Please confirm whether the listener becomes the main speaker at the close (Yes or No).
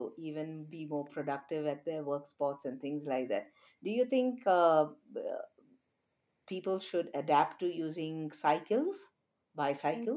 Yes